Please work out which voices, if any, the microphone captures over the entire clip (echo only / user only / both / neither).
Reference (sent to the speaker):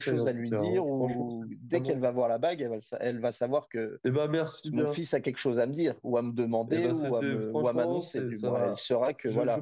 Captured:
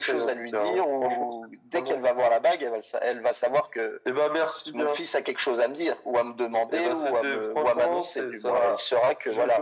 echo only